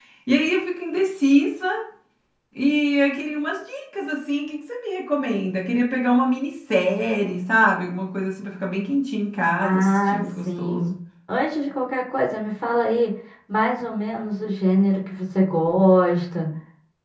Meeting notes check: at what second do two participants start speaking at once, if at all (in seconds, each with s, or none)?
9.6 s